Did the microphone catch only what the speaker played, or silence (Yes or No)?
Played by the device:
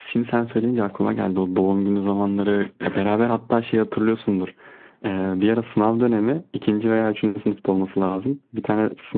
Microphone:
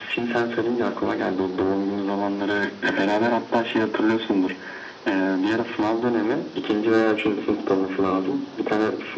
Yes